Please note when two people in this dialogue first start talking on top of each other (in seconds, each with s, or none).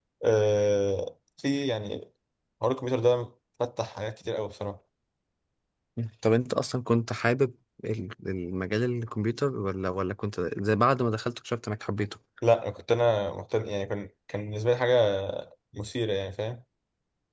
none